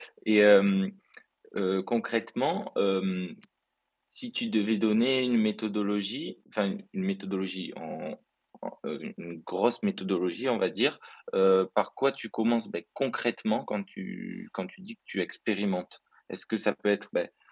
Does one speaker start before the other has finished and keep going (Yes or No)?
No